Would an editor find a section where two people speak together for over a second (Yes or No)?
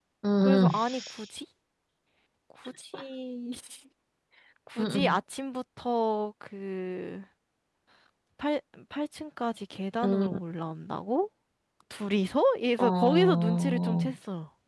Yes